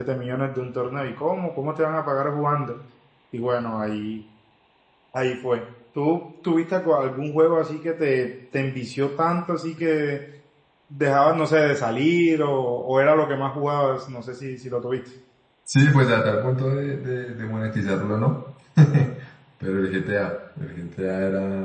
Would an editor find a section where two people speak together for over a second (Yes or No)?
No